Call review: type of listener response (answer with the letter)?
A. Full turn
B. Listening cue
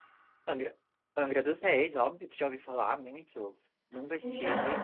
B